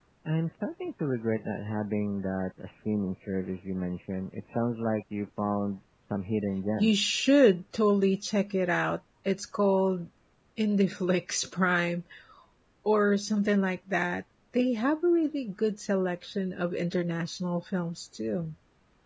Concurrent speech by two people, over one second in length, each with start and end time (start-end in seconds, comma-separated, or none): none